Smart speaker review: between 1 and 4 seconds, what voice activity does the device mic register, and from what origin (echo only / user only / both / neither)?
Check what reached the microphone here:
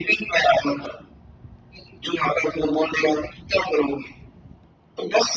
echo only